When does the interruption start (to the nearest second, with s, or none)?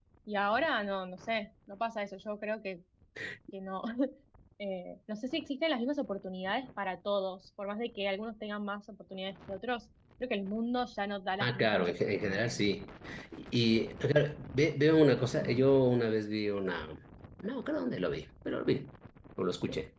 11 s